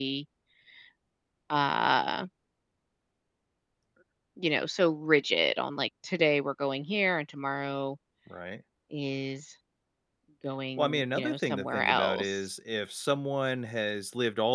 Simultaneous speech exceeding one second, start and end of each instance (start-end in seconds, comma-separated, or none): 10.8-12.5